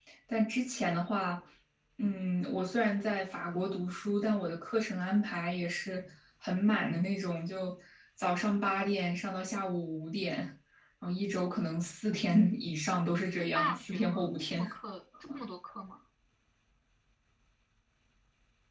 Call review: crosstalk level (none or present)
present